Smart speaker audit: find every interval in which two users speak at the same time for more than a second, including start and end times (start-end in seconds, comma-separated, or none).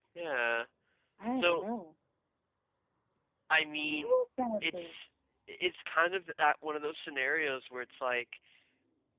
none